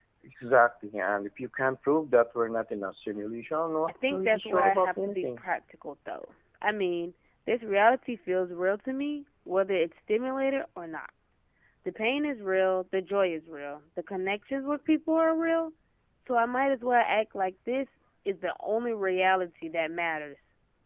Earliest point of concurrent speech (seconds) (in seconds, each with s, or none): 4.0 s